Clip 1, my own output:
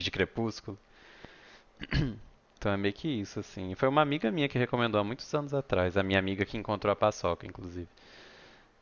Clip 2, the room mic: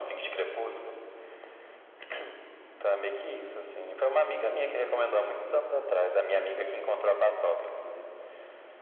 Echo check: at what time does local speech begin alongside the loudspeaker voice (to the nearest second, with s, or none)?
none